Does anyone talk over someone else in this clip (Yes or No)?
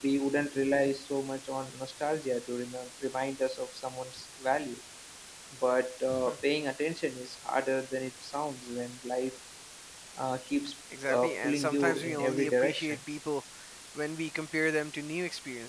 Yes